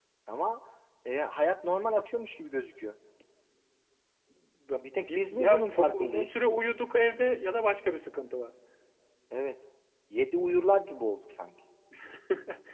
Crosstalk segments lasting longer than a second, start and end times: 4.9-6.3

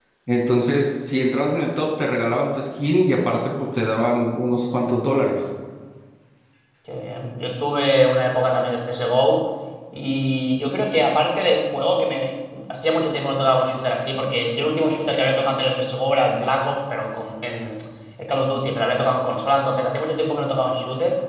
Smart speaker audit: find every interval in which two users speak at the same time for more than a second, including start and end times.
none

